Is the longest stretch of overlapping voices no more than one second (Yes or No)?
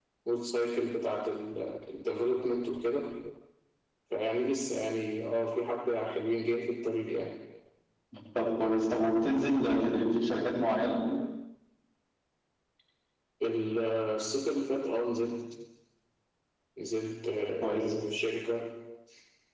Yes